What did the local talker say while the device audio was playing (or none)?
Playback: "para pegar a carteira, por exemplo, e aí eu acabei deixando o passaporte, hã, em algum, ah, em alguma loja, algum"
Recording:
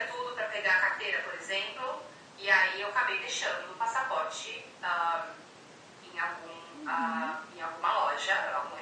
uhum.